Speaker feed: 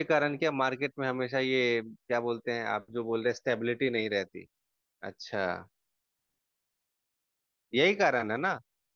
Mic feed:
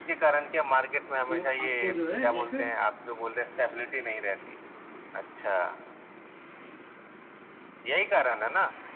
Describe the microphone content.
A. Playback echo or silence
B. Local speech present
B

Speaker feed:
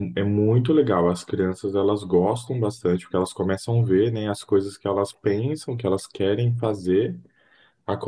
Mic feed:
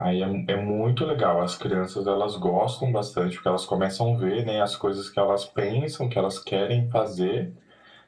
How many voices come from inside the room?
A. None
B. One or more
A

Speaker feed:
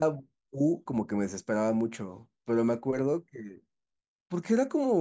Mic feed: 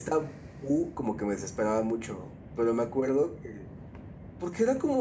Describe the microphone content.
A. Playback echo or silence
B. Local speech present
A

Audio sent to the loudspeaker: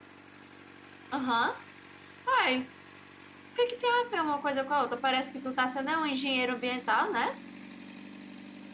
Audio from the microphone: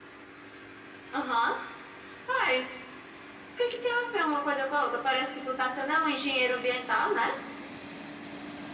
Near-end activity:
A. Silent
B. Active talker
A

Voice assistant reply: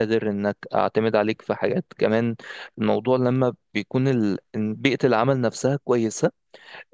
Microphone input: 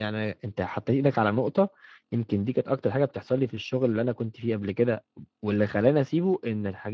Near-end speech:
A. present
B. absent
A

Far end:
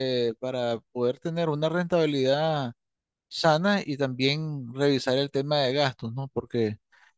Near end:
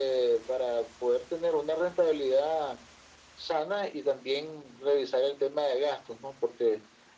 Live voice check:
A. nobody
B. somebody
A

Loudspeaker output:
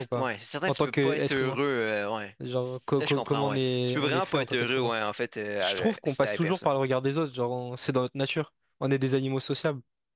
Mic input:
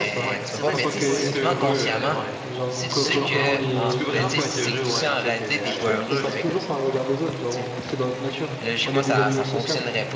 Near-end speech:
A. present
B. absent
A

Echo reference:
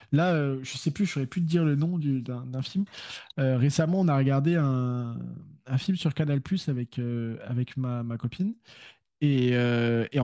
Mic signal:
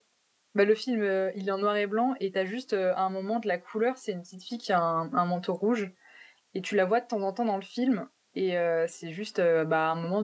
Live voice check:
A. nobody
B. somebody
B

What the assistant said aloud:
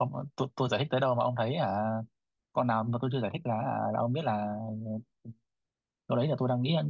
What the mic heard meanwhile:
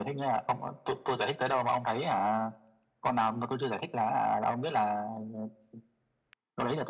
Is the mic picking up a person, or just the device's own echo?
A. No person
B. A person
A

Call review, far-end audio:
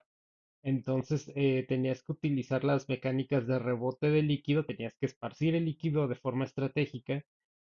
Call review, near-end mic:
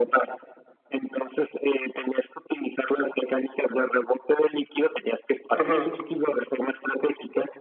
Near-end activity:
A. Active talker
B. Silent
A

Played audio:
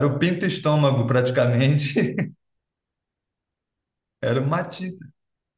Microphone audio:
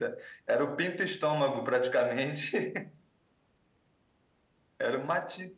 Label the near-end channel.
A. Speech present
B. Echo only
B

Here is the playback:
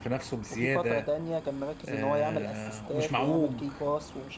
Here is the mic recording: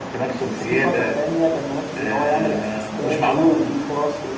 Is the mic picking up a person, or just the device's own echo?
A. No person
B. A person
A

